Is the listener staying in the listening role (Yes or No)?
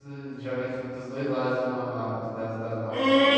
No